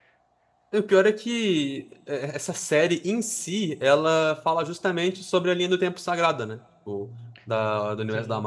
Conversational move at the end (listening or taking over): listening